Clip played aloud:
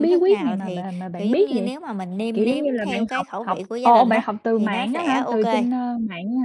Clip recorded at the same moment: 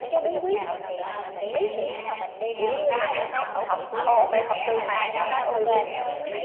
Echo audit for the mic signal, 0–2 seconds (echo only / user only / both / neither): both